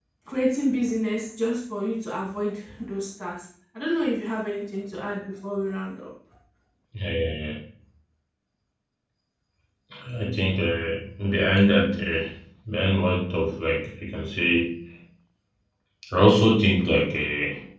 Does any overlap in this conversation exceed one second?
No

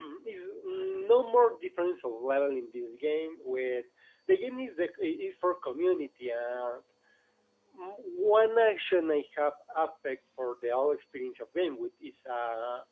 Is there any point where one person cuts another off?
No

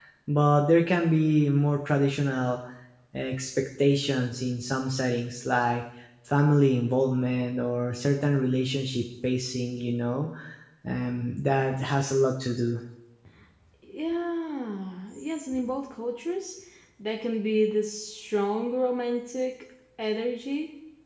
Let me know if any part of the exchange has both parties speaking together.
No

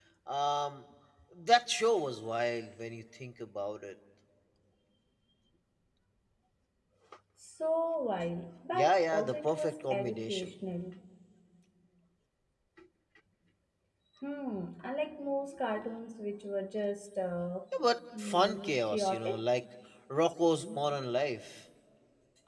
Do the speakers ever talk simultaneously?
Yes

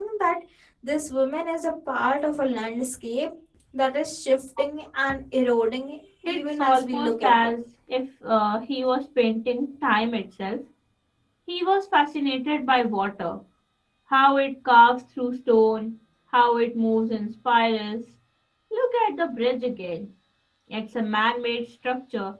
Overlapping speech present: Yes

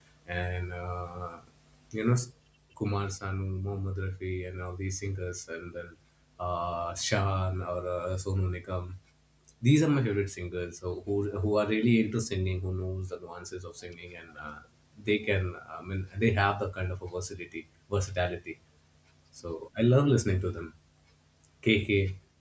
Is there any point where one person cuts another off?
No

